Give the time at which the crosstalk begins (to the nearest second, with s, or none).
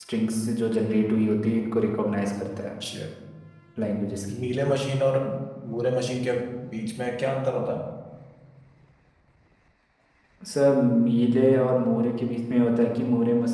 none